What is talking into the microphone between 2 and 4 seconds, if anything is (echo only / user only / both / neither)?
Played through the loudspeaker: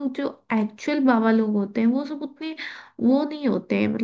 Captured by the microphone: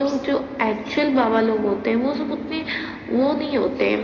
echo only